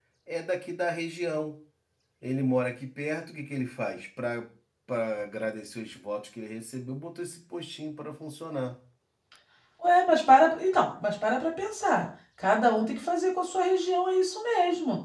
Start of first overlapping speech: none

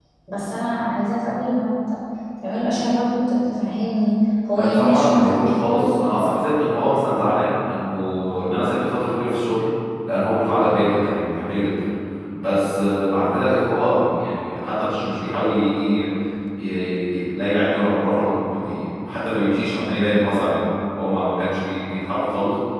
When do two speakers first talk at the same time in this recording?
4.6 s

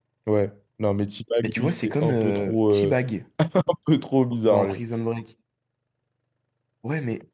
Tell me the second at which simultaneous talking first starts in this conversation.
1.4 s

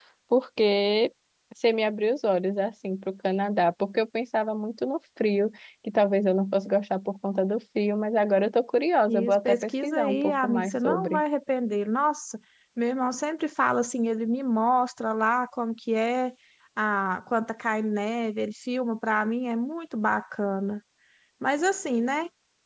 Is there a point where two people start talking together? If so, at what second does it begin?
9.1 s

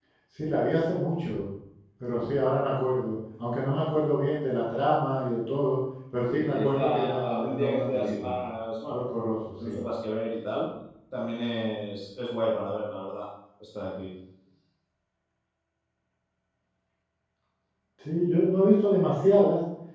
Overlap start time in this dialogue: 6.3 s

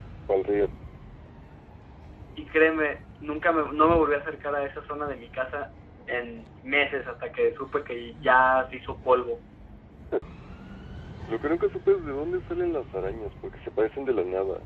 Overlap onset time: none

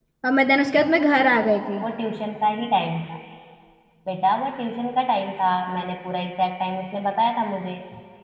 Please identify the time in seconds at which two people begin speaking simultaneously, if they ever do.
none

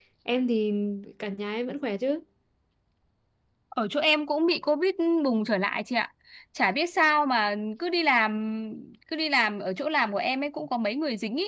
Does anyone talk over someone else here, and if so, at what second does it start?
none

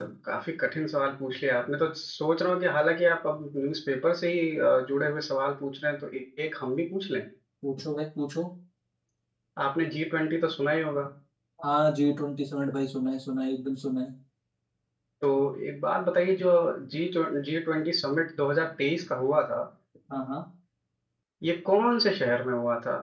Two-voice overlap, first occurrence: none

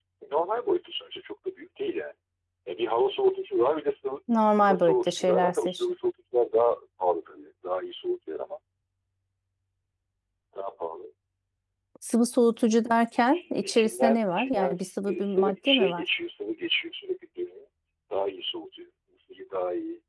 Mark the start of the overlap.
4.3 s

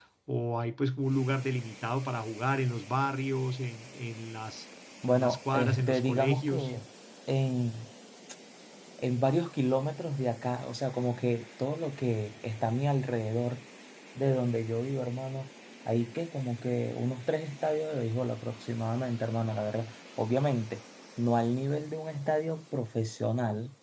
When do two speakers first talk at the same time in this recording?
5.1 s

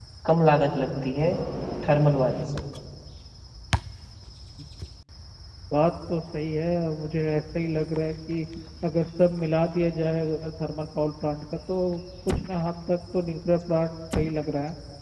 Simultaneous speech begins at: none

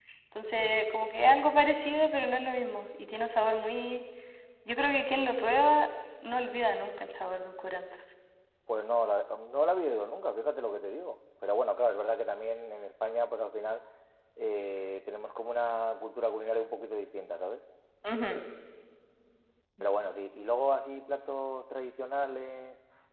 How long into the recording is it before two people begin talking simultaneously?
none

